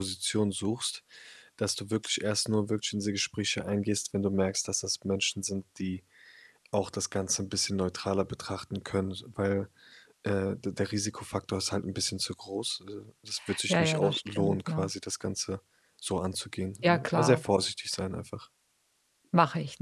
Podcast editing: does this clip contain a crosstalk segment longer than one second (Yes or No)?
Yes